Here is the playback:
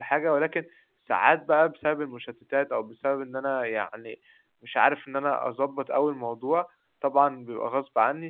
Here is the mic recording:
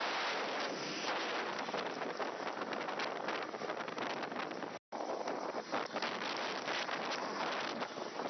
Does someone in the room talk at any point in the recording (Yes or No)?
No